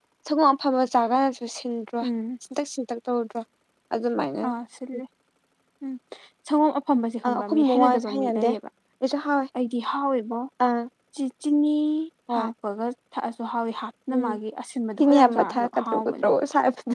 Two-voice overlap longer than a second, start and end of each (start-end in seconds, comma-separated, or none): 7.2-8.5, 15.0-16.3